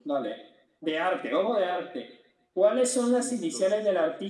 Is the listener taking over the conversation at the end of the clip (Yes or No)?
No